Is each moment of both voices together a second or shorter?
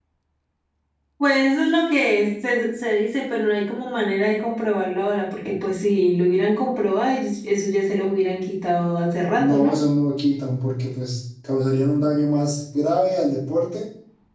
Yes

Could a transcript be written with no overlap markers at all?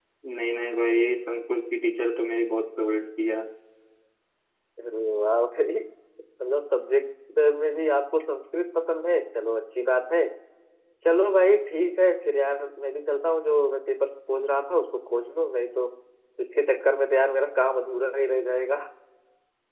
Yes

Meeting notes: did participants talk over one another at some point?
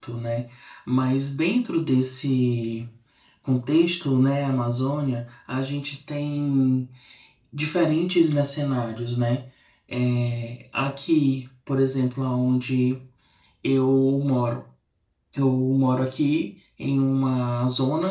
No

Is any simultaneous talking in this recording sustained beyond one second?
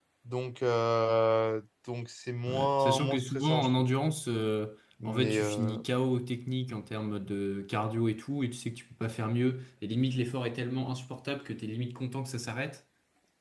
Yes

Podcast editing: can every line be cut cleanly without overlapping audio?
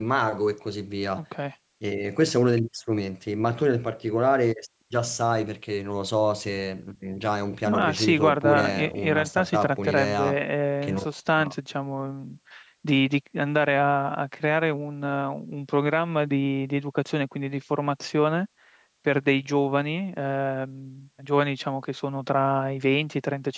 No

